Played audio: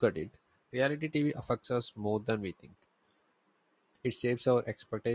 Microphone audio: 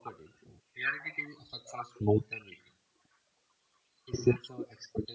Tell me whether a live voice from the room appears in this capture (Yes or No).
No